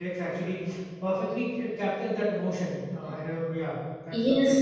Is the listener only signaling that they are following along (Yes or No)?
No